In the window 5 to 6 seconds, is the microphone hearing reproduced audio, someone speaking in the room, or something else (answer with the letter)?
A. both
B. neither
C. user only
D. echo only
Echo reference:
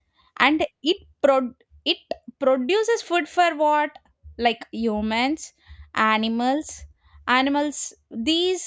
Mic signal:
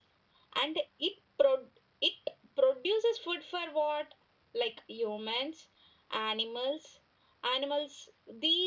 D